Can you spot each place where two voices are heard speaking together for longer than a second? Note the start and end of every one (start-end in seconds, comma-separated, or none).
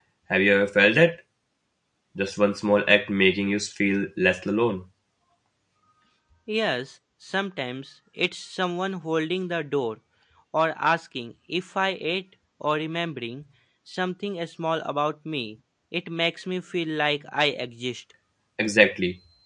none